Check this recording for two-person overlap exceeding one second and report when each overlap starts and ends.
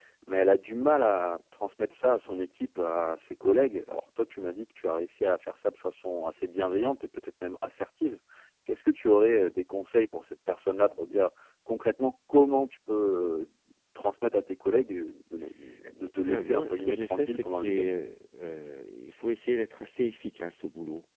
16.3-17.9

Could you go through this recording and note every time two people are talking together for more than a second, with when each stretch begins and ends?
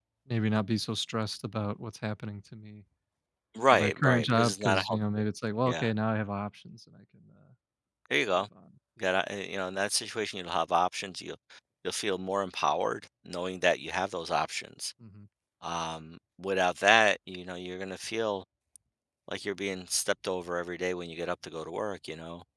3.7-5.0

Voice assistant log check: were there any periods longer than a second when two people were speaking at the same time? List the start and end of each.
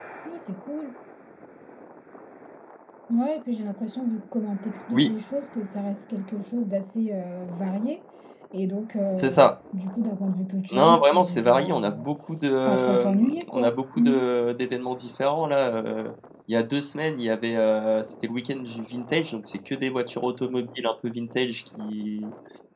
10.8-12.0, 12.7-14.2

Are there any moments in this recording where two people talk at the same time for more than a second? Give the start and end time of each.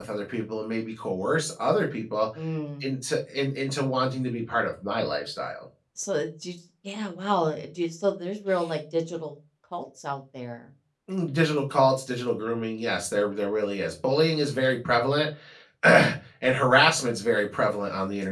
none

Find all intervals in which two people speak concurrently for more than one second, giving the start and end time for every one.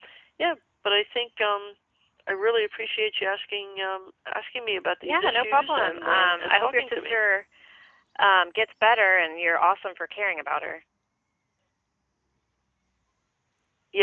5.0-7.2

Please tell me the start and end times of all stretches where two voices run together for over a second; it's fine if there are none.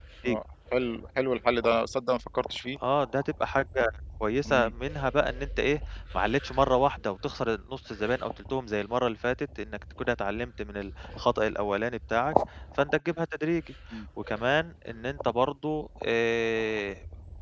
none

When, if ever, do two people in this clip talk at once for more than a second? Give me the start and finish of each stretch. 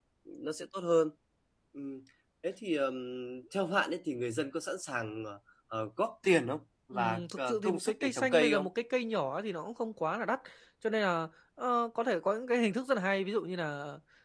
6.9-8.7

